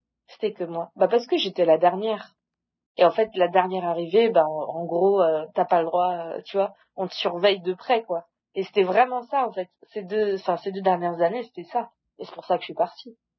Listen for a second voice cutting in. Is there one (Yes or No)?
No